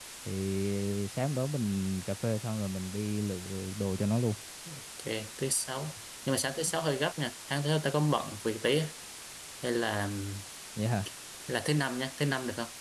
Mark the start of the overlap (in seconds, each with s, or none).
none